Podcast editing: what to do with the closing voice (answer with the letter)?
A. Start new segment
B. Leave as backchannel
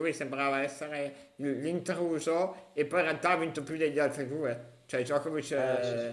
B